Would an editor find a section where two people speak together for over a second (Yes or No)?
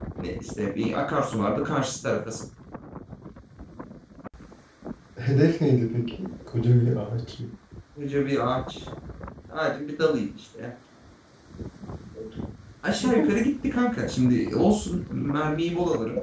No